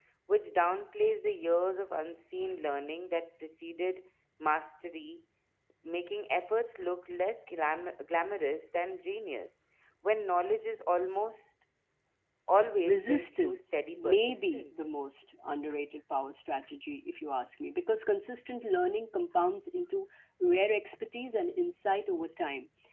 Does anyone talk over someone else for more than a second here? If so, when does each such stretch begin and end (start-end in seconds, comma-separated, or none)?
12.8-14.9